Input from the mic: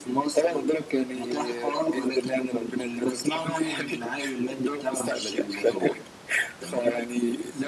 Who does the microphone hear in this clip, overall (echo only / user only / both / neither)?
echo only